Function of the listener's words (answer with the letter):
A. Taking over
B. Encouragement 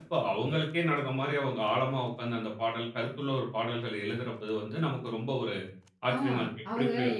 A